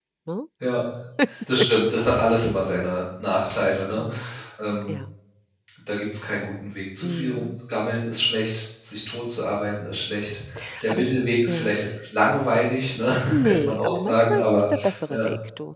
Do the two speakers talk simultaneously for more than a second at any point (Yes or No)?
Yes